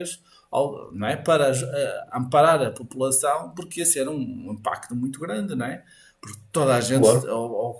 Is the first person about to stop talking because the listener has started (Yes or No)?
No